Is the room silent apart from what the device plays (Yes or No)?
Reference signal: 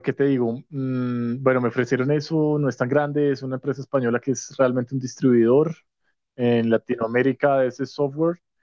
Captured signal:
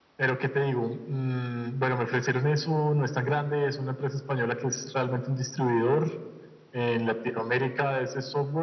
Yes